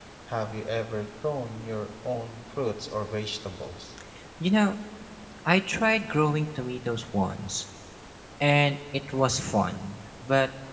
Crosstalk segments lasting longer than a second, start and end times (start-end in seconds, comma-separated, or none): none